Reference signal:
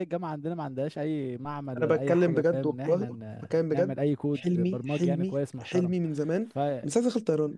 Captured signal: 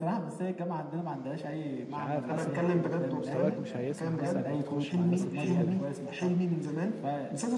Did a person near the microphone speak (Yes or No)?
Yes